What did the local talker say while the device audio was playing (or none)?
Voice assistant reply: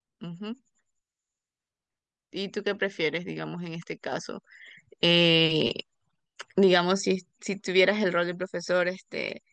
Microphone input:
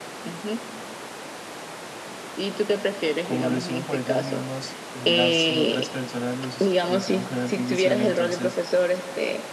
como lo hicieron por ellos mismos y las otras personas lo, hici- lo hicieron con artificial, entonces...